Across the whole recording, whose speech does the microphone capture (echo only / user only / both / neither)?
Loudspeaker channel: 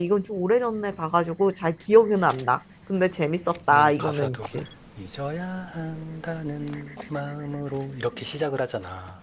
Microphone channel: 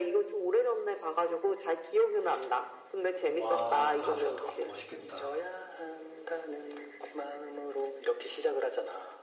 both